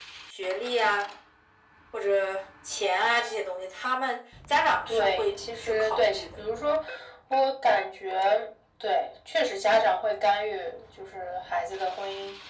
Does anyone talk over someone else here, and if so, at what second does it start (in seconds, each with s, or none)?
4.9 s